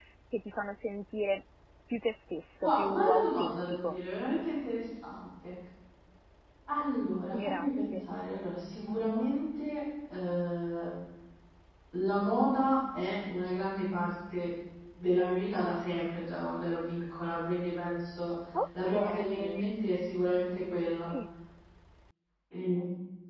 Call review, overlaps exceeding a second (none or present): present